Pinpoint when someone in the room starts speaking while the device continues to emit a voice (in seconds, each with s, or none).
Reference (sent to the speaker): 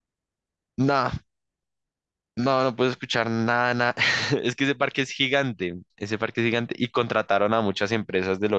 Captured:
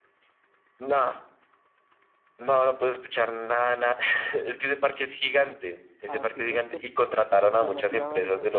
6.1 s